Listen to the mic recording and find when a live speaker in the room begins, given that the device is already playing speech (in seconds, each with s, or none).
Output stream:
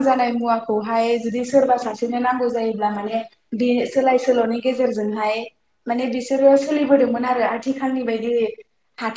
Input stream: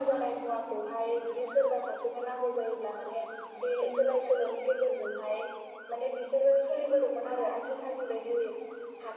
none